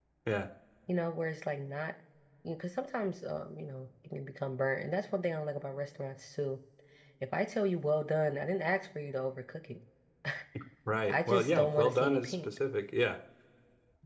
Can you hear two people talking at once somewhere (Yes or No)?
Yes